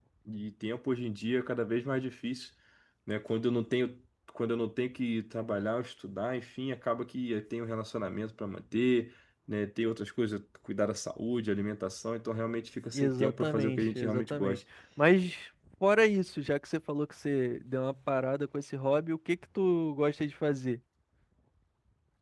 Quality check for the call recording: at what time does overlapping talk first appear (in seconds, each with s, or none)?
12.9 s